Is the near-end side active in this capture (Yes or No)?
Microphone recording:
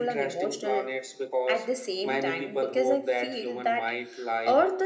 No